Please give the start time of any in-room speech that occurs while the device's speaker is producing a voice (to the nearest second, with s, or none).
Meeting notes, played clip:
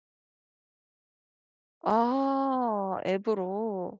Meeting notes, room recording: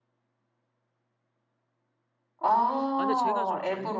3 s